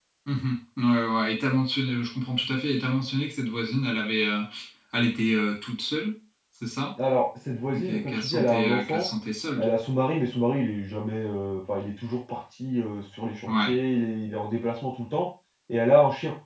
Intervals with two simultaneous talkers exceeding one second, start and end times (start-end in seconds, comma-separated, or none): 7.7-9.0